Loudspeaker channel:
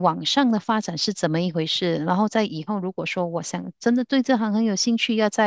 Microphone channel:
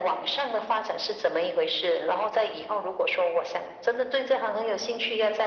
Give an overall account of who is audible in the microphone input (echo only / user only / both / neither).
echo only